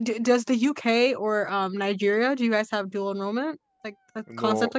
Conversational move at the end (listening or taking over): taking over